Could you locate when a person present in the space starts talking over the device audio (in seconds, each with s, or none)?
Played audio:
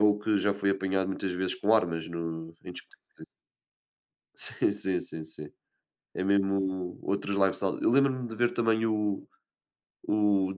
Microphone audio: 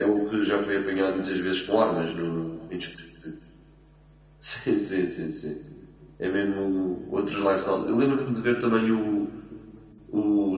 none